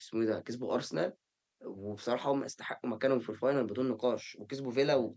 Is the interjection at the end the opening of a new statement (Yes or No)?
Yes